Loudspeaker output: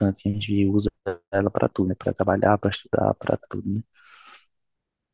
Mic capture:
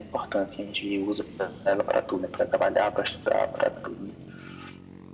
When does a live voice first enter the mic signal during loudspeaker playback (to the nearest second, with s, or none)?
none